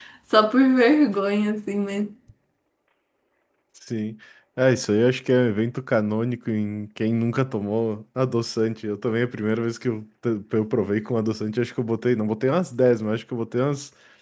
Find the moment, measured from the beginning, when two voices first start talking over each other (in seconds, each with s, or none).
none